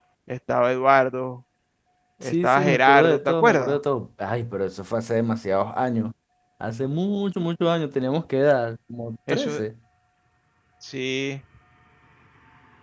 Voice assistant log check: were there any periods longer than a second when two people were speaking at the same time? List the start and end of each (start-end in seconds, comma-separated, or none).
2.2-3.8